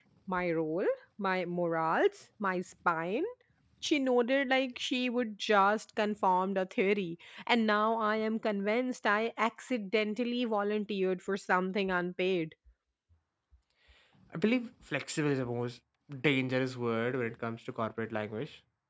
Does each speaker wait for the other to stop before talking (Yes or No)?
Yes